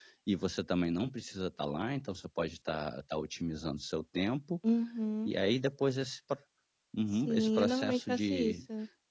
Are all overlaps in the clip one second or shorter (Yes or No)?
No